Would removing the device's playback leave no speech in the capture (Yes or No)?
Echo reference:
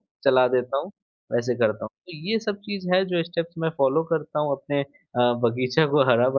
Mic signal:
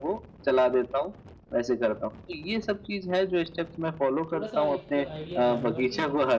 No